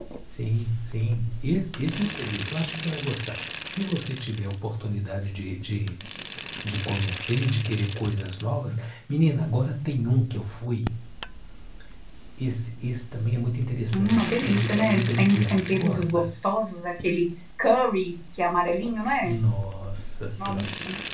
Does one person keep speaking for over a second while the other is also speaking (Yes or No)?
Yes